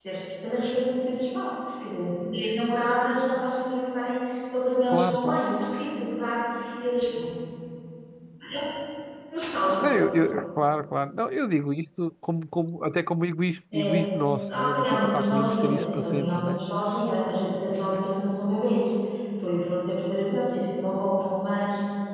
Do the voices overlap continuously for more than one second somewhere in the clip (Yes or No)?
Yes